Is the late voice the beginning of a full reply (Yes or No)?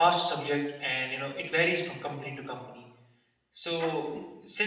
No